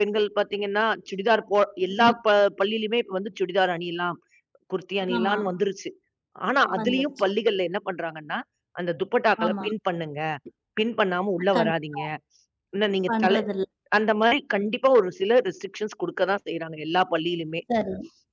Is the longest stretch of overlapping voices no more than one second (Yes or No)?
Yes